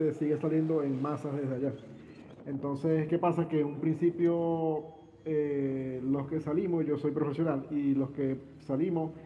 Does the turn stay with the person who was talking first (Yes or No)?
Yes